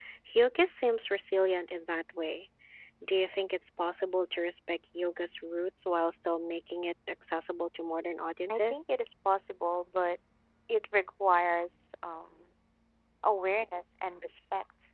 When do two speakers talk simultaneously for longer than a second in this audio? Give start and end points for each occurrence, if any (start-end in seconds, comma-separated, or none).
none